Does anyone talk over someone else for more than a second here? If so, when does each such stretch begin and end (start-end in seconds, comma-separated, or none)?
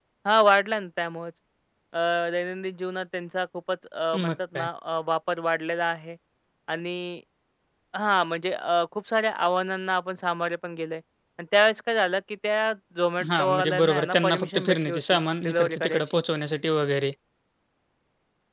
13.3-16.0